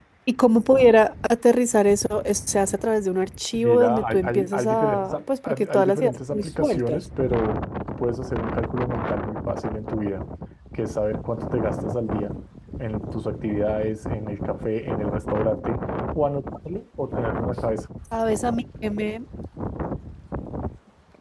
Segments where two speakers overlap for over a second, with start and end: 3.5-7.0

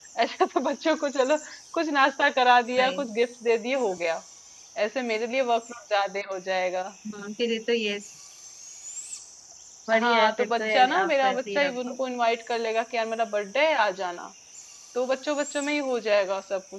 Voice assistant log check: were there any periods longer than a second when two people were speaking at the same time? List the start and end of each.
9.9-11.9

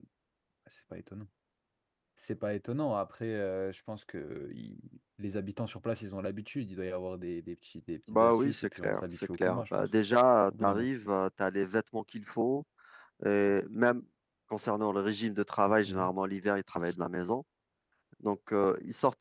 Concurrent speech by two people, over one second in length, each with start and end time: 8.1-9.9

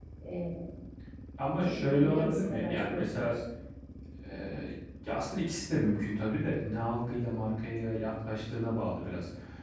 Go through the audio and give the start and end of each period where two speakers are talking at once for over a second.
1.6-3.3

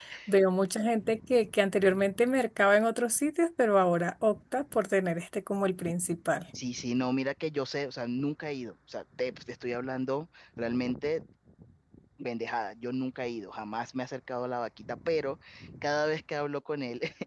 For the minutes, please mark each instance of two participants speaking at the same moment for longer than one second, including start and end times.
none

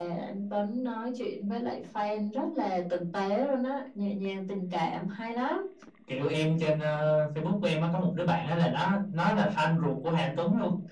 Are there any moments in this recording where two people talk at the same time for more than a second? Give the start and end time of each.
none

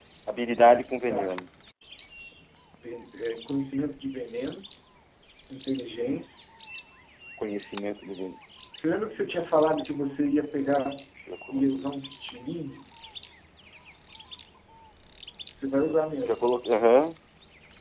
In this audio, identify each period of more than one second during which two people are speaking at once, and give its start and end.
none

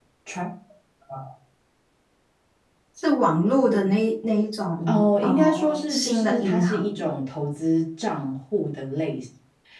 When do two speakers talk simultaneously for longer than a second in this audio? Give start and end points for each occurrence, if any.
4.8-7.1

